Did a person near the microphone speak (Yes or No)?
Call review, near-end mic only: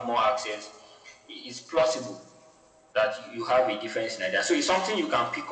No